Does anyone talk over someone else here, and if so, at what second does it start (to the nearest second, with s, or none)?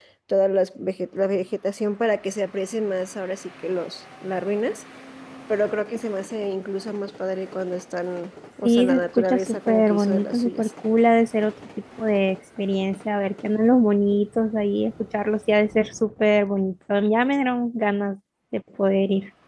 9 s